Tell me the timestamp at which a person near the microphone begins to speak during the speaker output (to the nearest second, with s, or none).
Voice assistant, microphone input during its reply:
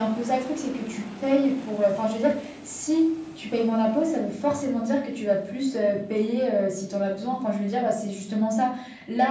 none